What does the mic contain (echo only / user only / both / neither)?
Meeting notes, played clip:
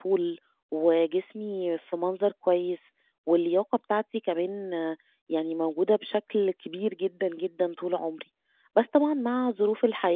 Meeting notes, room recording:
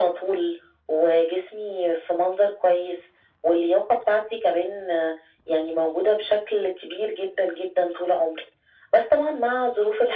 echo only